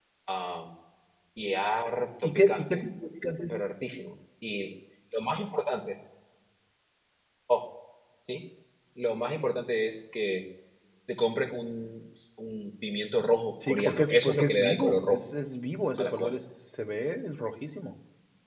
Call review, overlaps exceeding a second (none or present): present